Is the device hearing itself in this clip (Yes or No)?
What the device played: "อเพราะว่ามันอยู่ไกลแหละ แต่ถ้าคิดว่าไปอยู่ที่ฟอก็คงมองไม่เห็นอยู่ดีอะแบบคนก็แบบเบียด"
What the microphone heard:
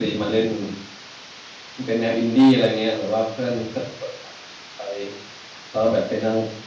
No